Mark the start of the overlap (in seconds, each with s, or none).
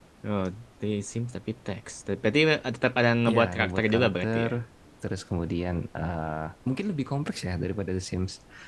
3.3 s